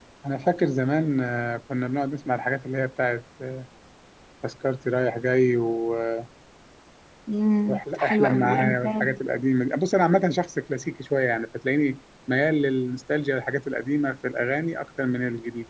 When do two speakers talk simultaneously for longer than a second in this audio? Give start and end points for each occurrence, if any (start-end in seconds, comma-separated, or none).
7.7-9.2